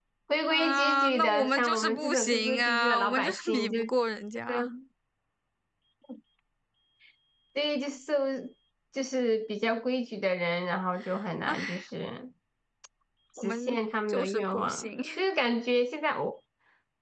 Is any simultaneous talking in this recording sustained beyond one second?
Yes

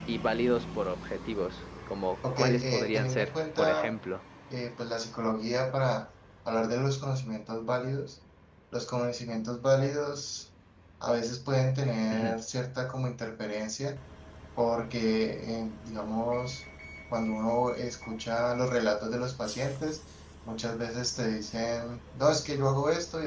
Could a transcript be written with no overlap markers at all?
No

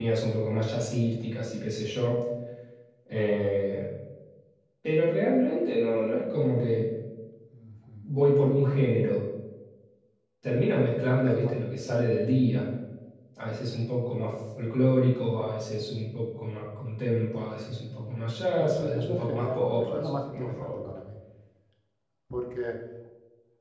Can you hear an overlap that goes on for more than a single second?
Yes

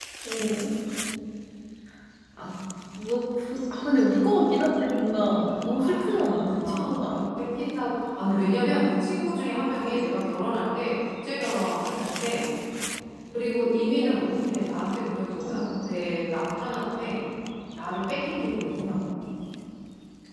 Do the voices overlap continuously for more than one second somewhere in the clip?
Yes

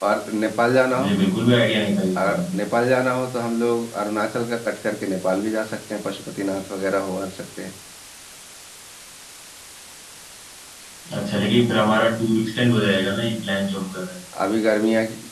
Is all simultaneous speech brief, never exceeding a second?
Yes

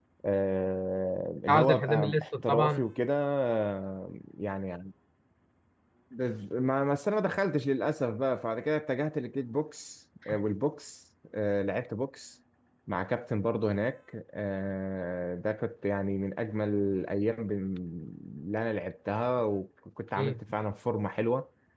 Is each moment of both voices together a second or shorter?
No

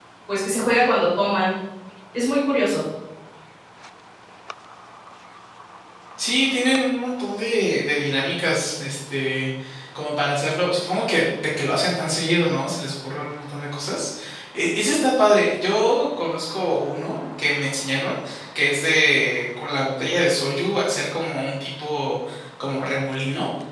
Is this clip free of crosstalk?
Yes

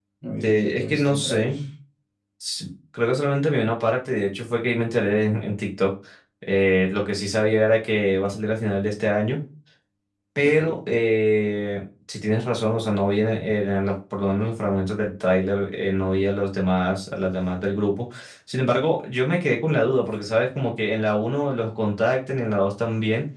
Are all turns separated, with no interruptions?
No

